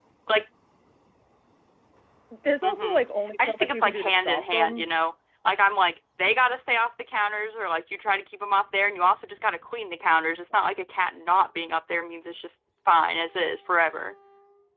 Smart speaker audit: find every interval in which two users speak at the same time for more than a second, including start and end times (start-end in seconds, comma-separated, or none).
3.4-4.9